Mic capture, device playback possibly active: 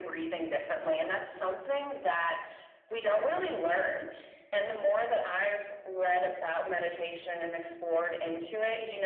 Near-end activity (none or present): none